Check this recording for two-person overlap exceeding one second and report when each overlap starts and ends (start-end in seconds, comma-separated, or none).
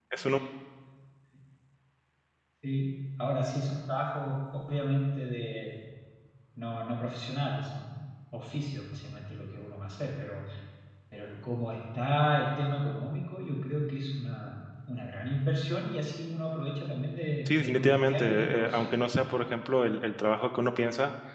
17.5-18.9